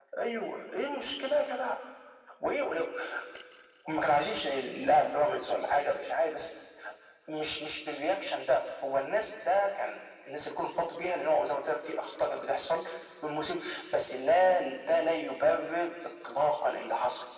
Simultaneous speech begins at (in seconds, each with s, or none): none